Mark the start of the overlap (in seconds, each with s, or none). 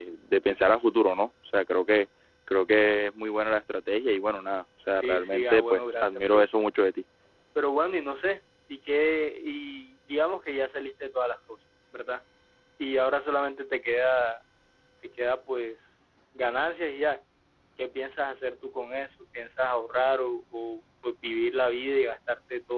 5.0 s